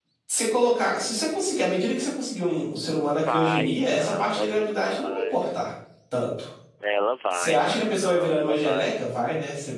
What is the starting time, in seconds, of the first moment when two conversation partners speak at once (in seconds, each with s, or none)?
3.2 s